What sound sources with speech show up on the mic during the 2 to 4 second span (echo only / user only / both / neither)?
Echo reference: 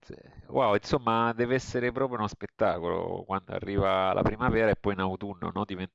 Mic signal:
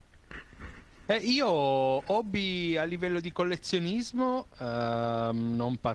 user only